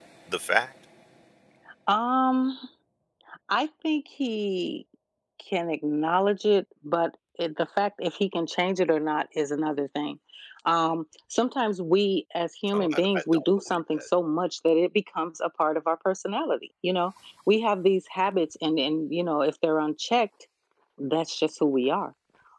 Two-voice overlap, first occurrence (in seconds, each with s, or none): 12.7 s